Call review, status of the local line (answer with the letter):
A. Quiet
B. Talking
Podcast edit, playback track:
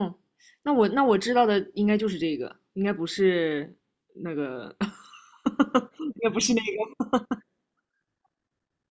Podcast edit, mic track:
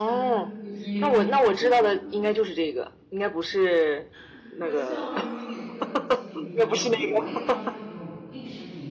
B